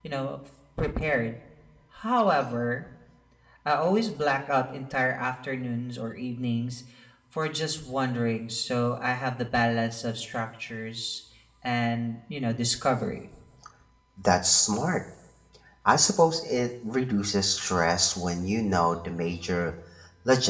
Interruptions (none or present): none